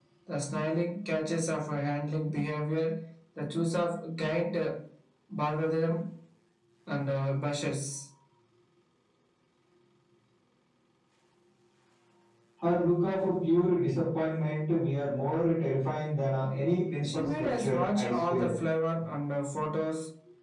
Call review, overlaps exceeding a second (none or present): present